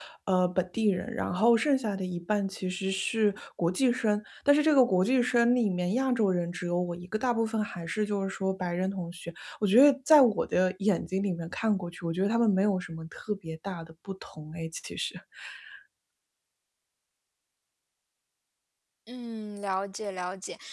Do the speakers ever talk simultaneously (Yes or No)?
No